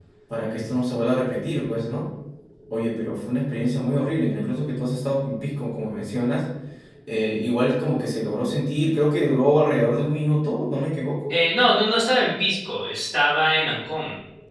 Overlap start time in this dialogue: none

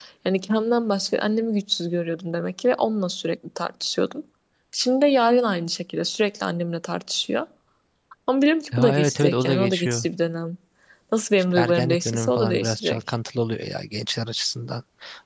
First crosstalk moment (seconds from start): 9 s

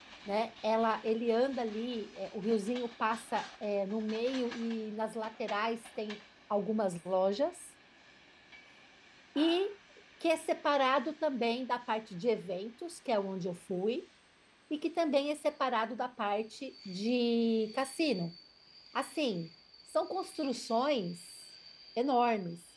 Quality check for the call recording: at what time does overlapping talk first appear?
none

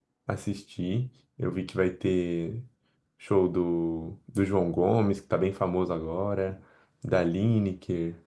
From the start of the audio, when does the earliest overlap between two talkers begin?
none

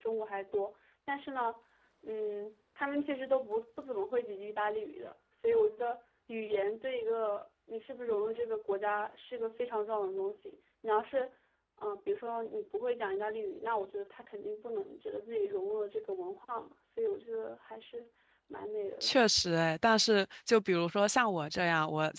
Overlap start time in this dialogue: none

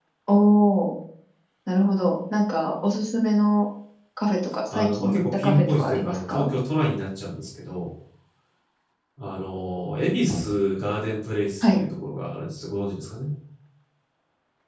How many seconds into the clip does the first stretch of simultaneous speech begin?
5 s

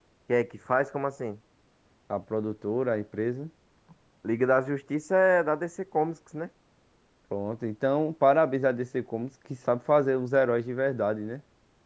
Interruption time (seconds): none

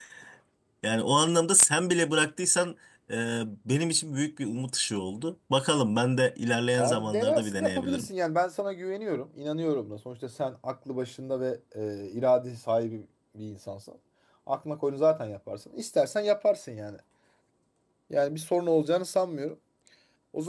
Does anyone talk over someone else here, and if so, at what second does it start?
7 s

